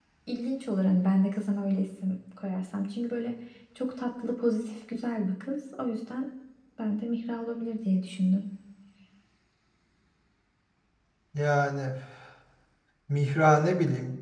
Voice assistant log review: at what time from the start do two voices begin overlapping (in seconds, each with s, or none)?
none